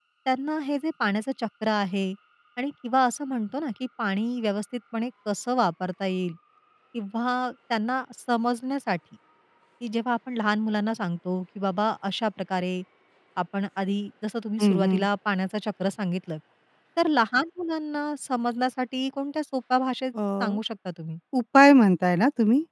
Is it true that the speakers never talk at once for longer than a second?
Yes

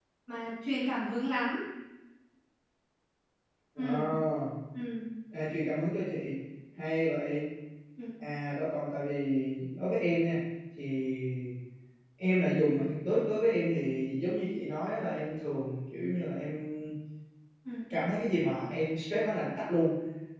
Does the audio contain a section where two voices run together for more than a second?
No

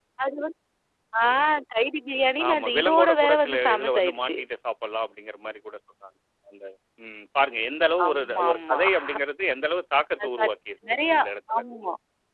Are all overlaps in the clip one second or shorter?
No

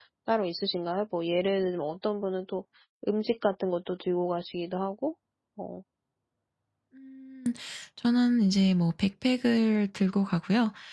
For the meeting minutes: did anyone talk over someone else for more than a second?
No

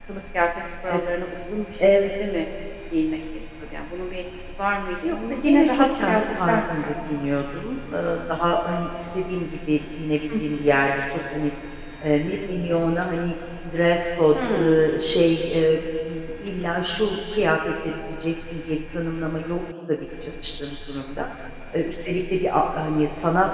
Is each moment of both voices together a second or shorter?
No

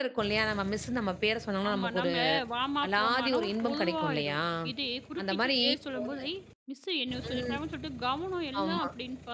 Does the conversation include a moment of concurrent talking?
Yes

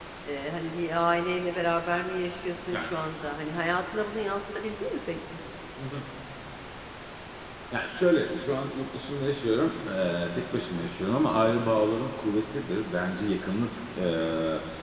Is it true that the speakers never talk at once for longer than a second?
Yes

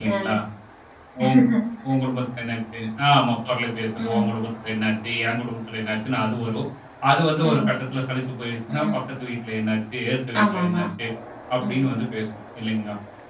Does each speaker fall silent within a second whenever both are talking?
Yes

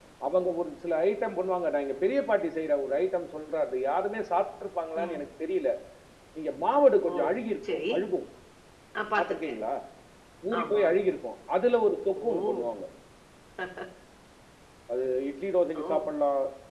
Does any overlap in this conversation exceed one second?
No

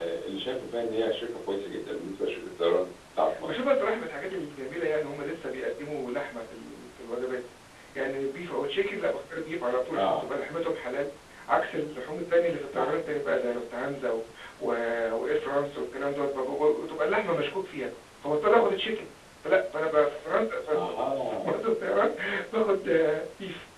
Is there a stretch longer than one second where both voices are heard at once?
No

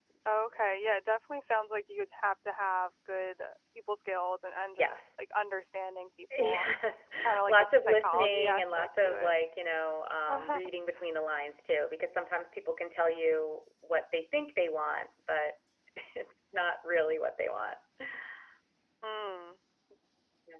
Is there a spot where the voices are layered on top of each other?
Yes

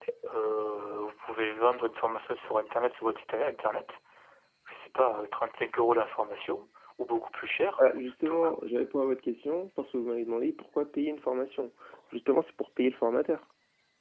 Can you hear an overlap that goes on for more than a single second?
No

